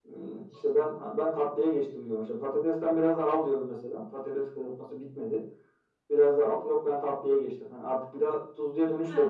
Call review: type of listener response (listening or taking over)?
taking over